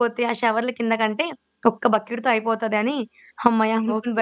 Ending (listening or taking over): taking over